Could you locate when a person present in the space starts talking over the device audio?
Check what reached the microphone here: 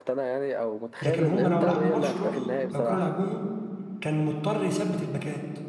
1.0 s

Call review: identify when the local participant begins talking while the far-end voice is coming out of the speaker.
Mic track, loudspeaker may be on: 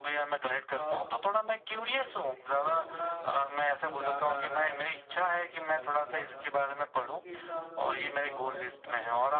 0.7 s

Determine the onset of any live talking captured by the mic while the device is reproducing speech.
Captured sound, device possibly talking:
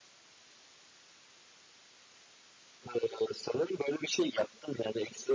none

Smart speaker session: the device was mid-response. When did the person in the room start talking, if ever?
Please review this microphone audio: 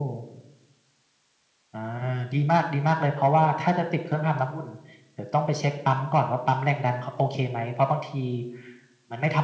none

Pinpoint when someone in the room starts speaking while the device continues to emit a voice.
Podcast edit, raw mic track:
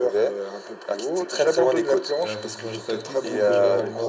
2.2 s

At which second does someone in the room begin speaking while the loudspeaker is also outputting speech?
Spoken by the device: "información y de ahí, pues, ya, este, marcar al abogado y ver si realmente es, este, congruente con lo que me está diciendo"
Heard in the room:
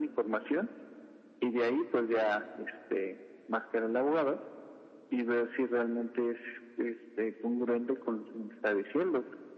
none

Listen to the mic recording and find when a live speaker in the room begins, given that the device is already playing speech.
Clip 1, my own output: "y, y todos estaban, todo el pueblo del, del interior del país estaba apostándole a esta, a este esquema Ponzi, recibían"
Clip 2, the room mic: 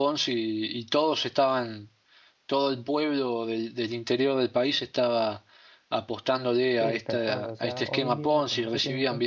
6.8 s

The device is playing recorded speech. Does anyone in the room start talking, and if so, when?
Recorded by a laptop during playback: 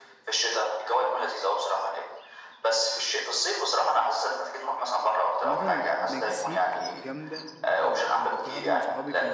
5.4 s

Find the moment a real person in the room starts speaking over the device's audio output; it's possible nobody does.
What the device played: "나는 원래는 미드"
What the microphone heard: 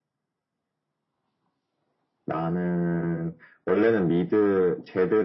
none

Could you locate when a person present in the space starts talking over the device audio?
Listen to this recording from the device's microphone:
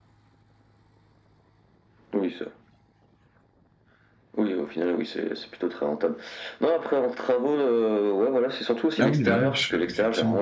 9.0 s

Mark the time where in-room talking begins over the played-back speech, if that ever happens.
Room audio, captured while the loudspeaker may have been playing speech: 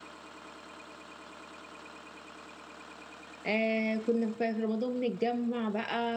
3.5 s

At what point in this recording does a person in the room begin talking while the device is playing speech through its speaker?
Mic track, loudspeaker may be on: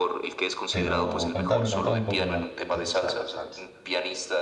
0.7 s

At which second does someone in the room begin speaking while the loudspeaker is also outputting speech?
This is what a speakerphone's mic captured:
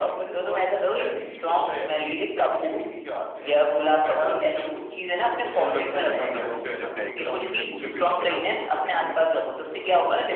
6.0 s

